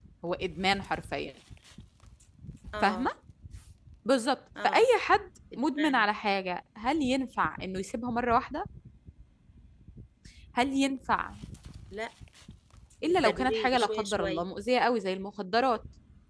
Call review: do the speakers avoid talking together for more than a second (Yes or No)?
No